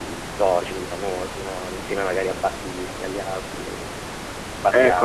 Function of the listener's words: taking over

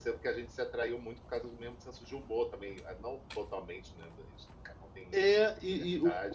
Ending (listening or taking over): taking over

